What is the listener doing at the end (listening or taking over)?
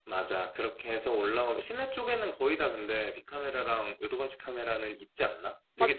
taking over